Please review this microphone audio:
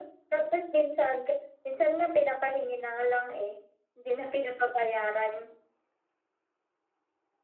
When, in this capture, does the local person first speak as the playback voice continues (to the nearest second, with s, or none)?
none